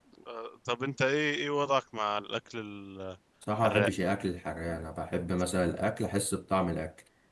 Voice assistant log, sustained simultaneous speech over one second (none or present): none